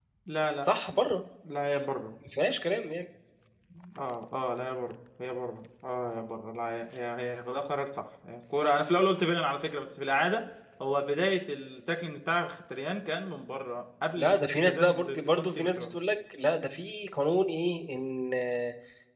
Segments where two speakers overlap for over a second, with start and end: 14.2-15.8

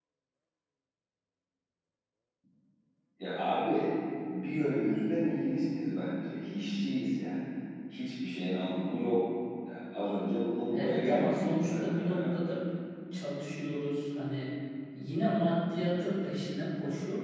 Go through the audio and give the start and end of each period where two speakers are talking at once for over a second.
10.7-12.4

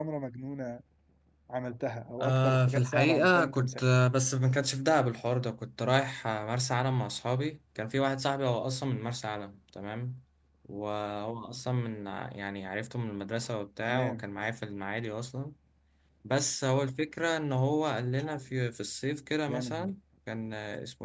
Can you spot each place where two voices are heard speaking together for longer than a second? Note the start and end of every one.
2.2-3.8

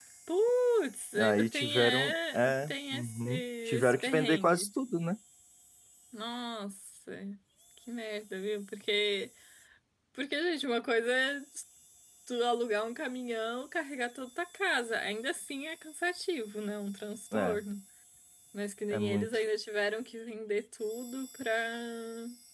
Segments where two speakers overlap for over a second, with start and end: 1.2-4.7

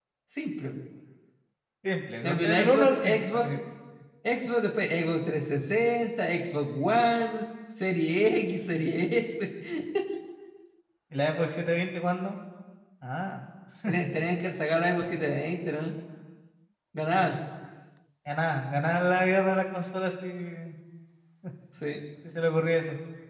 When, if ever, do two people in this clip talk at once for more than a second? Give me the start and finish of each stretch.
2.2-3.6

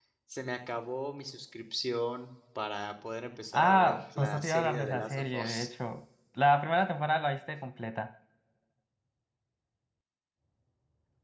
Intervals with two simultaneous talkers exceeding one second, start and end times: 3.5-5.7

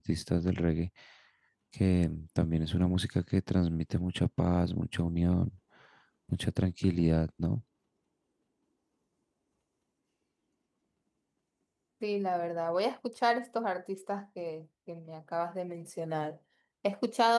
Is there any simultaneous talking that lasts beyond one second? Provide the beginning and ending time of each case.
none

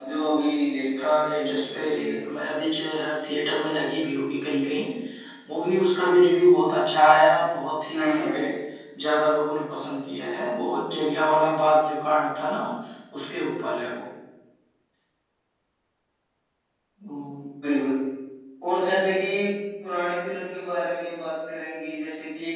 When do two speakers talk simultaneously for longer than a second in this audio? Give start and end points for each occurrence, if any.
1.0-2.2

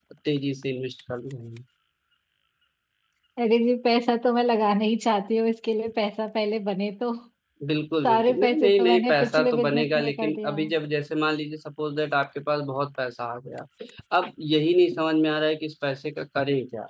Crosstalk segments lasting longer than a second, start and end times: 8.1-10.6

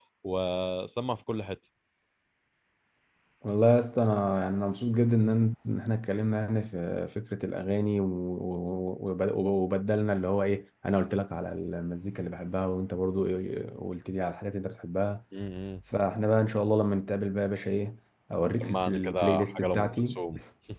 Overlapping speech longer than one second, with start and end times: 18.6-20.1

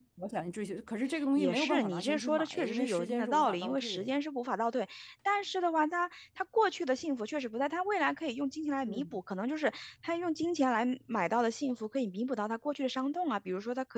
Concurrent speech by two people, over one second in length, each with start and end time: 1.4-4.1

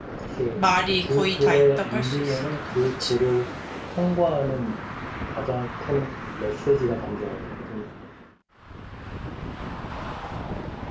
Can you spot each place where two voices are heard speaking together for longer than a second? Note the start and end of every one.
1.0-3.2

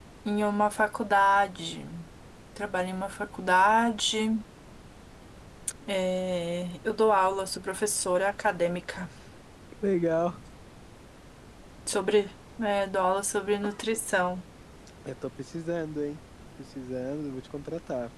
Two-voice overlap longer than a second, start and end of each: none

